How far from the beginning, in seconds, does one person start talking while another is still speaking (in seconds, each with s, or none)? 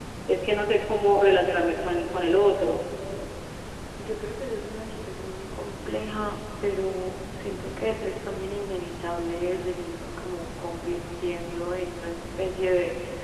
none